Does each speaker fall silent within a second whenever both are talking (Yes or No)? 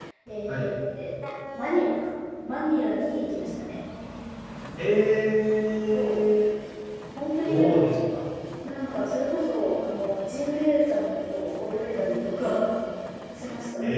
Yes